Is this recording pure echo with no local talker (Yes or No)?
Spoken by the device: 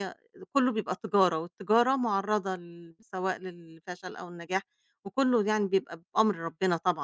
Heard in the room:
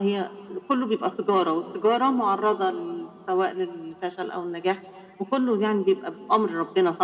Yes